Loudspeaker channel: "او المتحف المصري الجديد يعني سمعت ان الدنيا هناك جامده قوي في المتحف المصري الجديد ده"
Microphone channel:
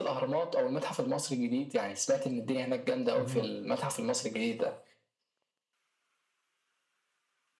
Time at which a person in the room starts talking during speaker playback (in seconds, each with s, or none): 3.1 s